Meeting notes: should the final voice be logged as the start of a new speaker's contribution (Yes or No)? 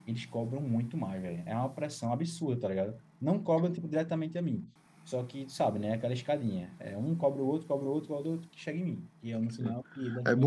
Yes